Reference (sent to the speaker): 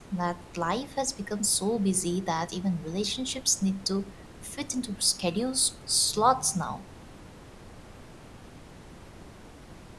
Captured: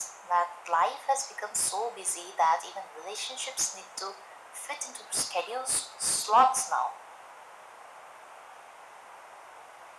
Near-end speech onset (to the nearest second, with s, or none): none